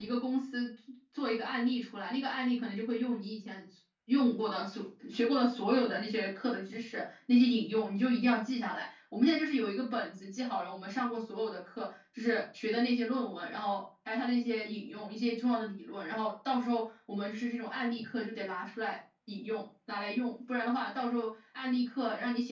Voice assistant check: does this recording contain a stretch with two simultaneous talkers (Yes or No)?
No